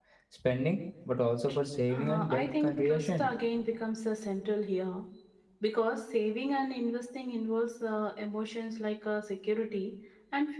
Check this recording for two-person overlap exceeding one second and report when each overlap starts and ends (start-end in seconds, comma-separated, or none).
1.9-3.3